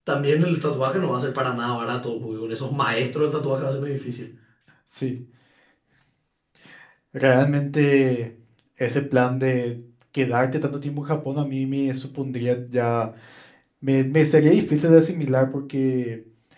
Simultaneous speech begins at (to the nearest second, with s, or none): none